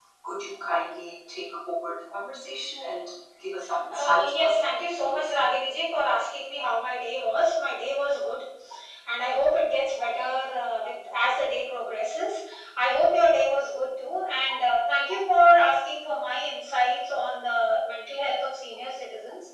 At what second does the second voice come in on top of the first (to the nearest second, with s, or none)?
4 s